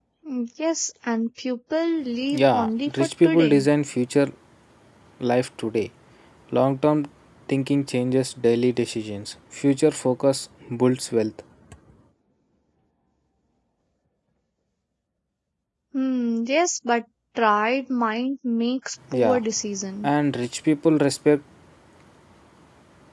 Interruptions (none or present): present